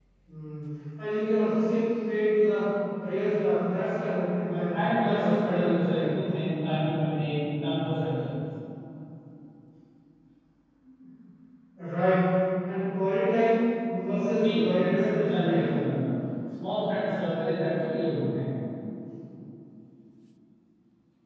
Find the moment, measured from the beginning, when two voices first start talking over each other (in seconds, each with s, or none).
4.5 s